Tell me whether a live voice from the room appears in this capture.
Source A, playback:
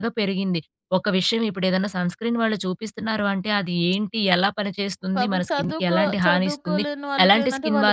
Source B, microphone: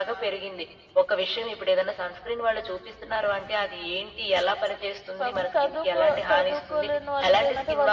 No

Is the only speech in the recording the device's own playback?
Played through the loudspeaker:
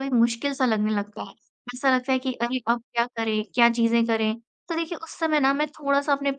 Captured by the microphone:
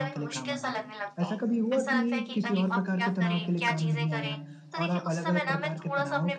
No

